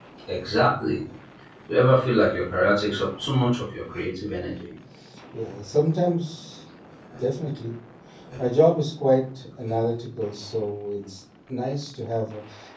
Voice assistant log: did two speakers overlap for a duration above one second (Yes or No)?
No